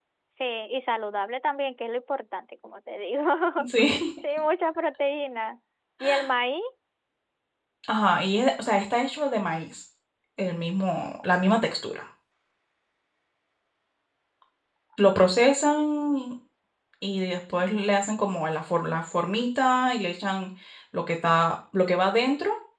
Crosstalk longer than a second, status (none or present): none